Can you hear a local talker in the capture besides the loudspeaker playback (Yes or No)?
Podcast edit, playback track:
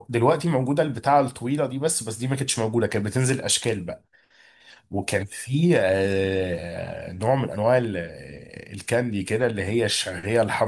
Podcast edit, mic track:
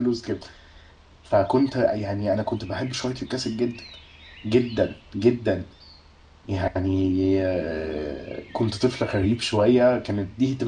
Yes